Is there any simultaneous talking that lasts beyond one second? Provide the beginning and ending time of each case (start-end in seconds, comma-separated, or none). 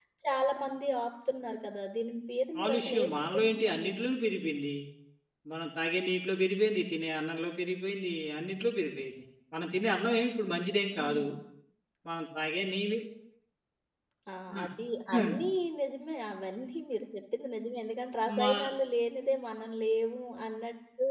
2.5-3.9